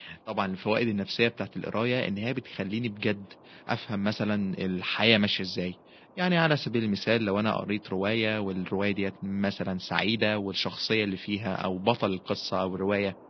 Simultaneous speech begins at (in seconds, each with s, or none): none